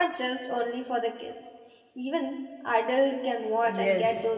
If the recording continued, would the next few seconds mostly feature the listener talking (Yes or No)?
Yes